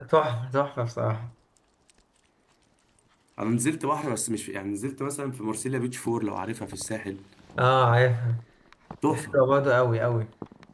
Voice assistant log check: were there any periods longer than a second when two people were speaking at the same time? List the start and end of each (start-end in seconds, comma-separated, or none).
none